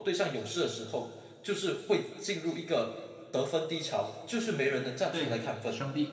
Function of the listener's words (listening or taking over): taking over